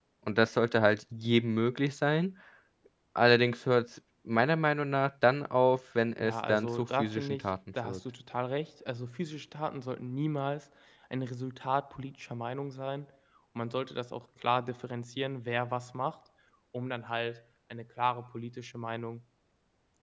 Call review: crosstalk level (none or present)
present